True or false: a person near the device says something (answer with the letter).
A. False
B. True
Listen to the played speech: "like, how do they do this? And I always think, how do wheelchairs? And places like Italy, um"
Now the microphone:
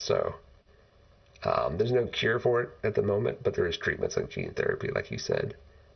B